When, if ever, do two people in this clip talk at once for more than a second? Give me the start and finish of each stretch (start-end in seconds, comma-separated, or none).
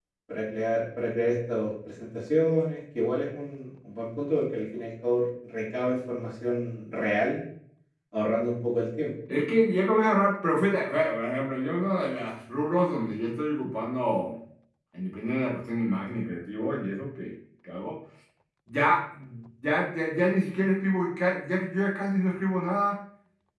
none